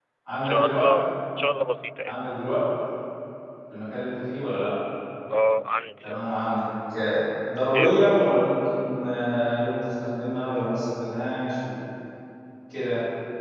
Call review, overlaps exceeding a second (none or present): none